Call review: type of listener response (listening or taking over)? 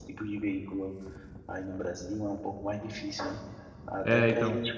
listening